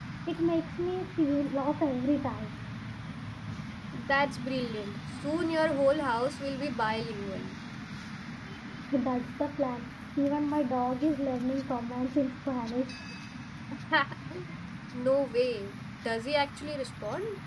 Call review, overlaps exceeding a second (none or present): none